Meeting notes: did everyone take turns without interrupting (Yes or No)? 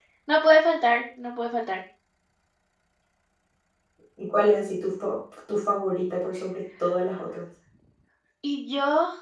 Yes